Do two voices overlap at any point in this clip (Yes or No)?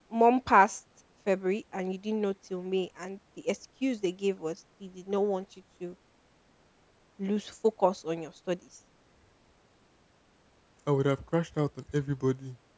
No